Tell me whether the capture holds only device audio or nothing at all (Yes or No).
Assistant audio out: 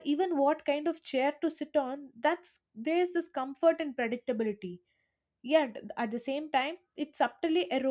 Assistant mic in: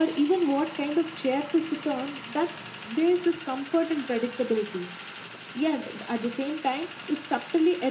Yes